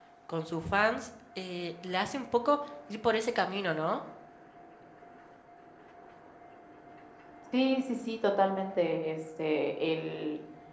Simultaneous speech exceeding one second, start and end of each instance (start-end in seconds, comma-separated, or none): none